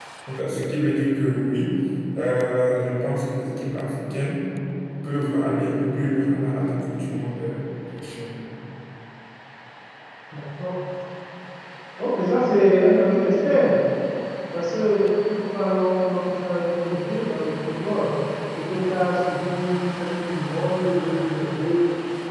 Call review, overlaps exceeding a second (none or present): none